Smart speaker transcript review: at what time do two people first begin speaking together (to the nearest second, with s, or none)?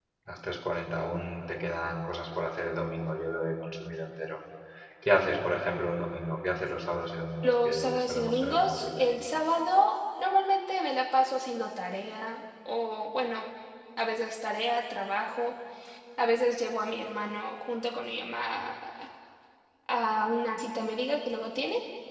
7 s